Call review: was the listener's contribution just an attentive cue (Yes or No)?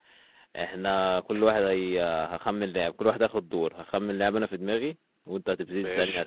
Yes